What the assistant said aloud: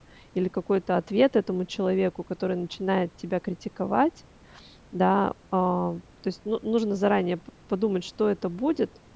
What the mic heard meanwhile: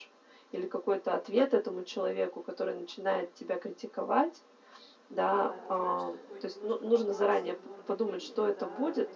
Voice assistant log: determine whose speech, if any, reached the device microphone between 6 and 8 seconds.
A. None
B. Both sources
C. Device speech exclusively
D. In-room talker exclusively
B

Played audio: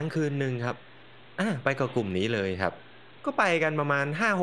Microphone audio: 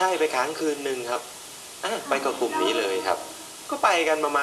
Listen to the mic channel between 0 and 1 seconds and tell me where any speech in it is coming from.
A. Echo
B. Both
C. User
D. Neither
A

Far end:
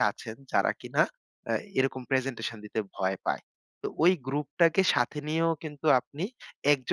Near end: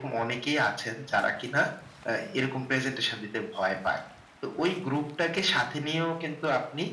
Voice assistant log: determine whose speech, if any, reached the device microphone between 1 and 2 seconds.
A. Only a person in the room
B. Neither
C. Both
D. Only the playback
D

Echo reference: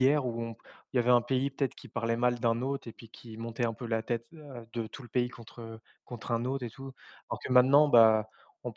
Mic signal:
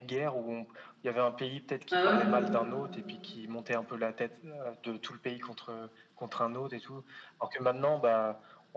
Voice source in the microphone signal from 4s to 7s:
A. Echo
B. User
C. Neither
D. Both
A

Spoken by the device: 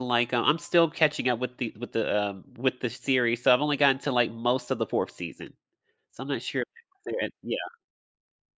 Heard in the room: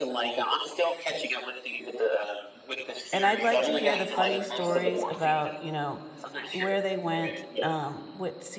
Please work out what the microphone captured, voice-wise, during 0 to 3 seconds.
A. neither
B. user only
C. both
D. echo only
D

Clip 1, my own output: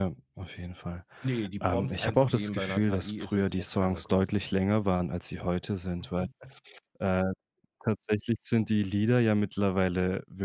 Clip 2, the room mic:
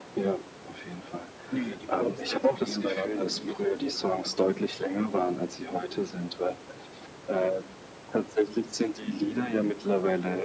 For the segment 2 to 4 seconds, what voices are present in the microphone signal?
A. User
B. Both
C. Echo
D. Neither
C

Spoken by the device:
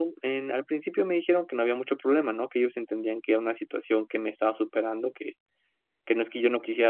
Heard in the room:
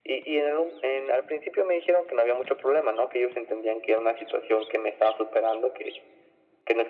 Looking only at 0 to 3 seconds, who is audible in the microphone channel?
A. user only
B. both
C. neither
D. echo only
D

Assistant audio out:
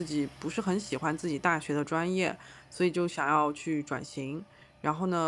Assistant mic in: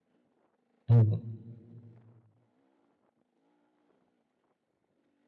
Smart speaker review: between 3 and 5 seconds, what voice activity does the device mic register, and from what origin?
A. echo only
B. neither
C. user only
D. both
B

